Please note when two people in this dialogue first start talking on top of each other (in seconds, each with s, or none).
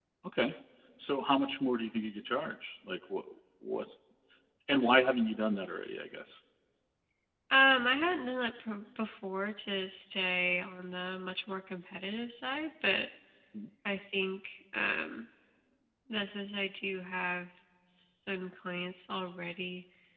none